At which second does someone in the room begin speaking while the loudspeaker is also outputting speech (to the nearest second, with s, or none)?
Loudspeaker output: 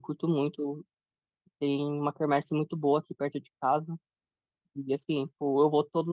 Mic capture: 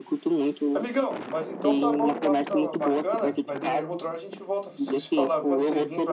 1 s